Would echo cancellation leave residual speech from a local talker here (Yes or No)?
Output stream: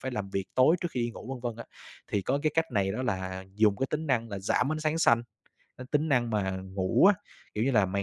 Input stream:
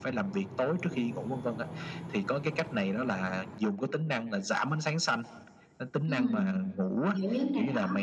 Yes